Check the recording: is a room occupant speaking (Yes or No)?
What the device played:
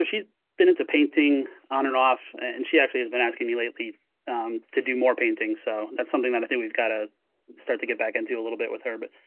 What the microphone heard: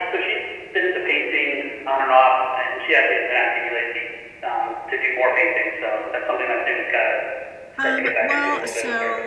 Yes